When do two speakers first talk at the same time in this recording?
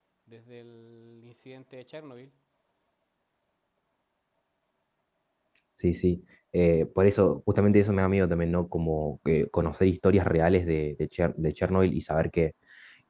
none

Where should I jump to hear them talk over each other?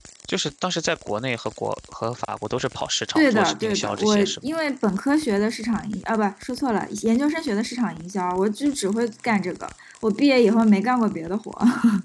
3.2 s

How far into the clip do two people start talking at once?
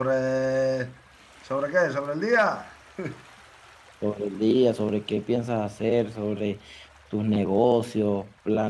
none

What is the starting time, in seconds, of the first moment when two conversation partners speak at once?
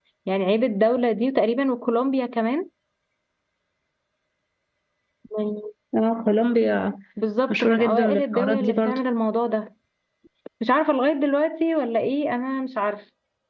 7.5 s

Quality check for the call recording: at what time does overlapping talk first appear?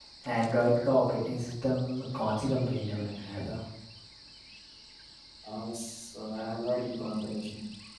none

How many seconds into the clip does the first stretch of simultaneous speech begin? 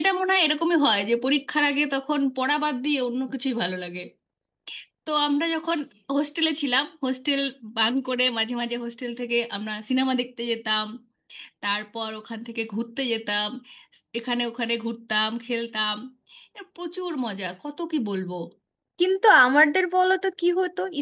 none

